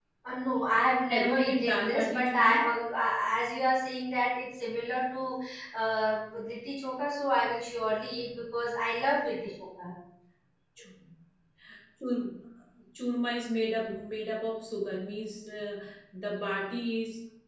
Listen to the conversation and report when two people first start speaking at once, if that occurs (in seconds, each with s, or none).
1.1 s